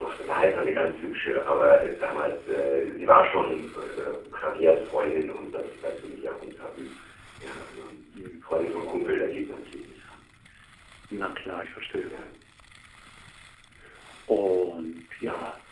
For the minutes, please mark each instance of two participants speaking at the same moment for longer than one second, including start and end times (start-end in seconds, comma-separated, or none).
none